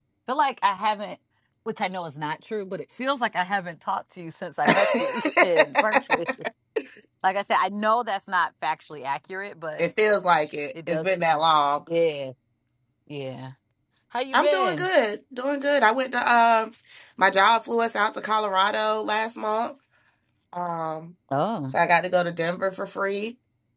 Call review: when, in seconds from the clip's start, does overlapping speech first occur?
4.7 s

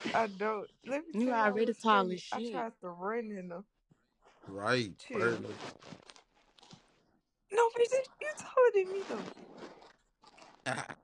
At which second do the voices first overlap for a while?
1.3 s

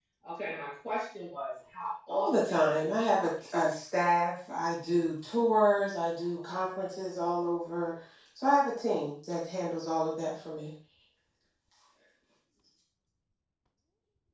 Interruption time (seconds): 2.1 s

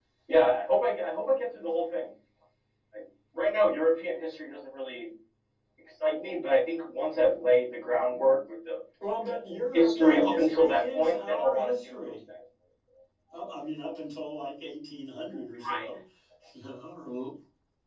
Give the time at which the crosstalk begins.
9.2 s

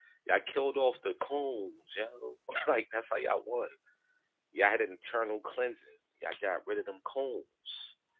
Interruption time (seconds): none

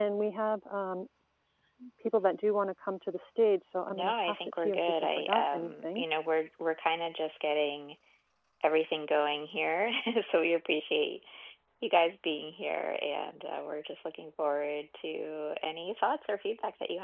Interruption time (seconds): 3.9 s

